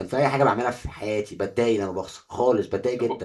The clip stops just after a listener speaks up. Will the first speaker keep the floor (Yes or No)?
No